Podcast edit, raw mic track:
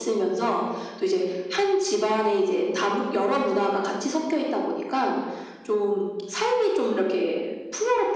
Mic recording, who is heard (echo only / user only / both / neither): echo only